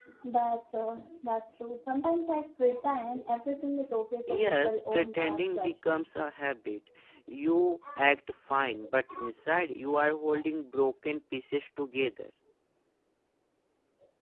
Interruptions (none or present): present